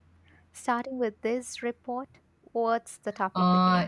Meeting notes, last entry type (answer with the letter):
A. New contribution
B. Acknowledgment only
A